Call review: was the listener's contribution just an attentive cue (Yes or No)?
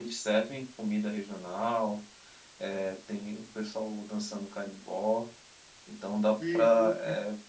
No